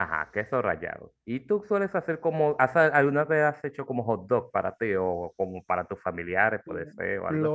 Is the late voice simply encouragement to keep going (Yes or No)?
No